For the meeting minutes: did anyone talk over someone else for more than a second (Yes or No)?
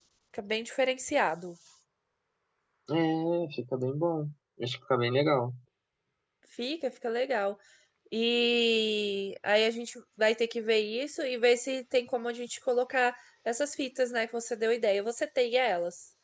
No